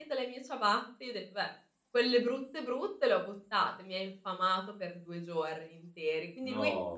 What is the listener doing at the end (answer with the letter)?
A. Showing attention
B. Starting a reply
A